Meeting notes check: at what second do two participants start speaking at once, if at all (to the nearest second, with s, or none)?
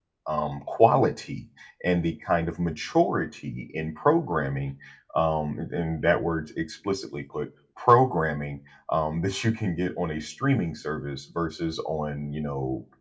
none